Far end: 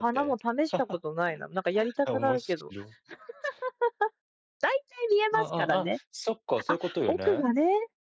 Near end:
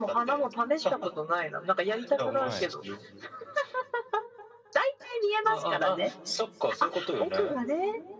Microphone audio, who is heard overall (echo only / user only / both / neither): both